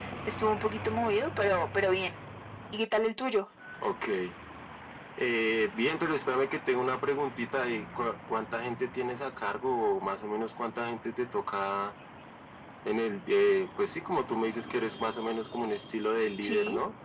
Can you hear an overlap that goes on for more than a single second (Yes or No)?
No